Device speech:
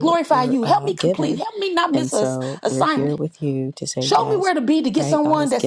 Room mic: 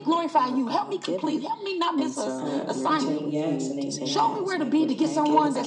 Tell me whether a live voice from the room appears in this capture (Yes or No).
Yes